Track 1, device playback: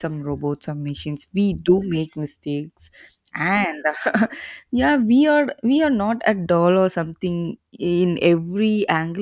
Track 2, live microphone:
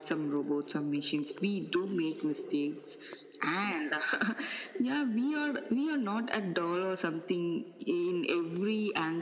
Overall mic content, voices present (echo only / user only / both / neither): echo only